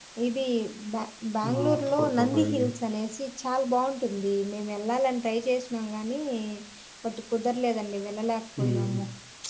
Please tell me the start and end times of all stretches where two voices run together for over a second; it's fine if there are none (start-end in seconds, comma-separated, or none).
1.5-2.7